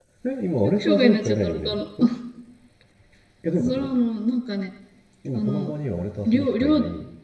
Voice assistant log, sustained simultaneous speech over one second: present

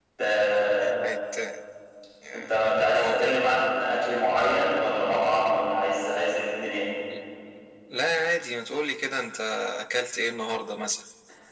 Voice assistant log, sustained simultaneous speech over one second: none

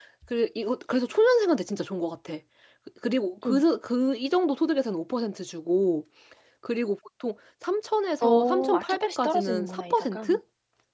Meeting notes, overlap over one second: present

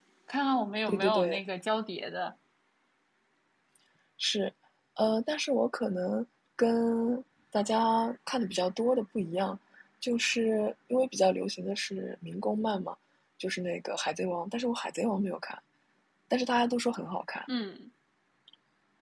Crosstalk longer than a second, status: none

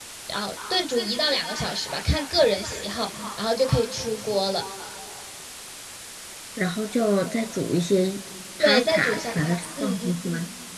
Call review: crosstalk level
present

